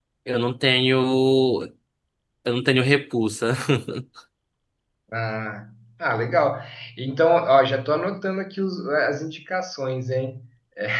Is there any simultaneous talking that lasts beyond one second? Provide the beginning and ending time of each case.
none

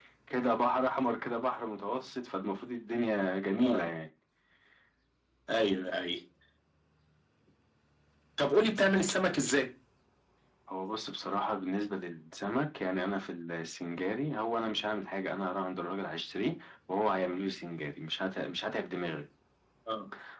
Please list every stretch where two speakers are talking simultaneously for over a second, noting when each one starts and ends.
none

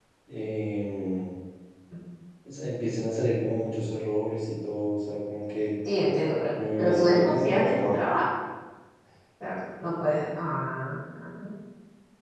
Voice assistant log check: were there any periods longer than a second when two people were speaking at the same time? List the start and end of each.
6.8-8.0

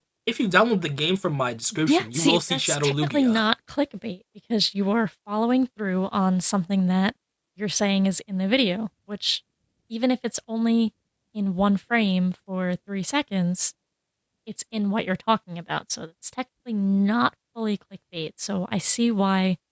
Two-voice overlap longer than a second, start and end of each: 1.9-3.4

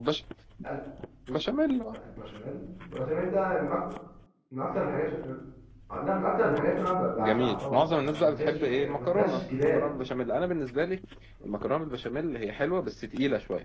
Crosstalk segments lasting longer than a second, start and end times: 7.2-9.8

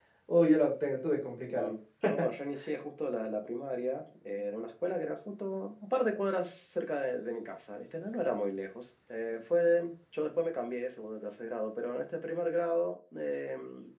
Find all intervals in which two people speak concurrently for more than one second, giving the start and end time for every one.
none

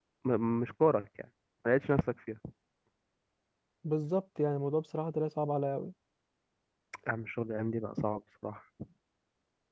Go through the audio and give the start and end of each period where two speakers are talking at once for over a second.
none

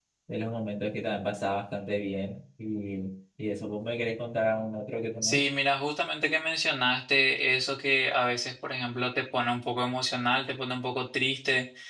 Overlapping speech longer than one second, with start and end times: none

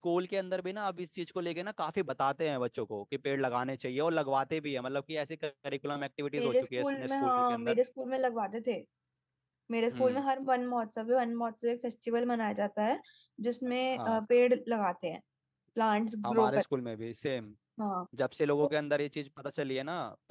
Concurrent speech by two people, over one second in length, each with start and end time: 6.4-7.8

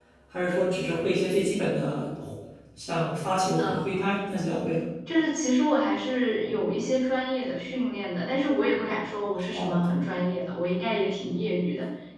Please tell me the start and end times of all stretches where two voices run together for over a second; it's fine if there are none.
none

